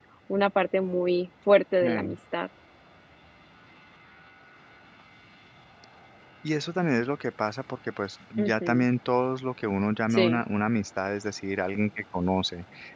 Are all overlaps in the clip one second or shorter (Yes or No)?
Yes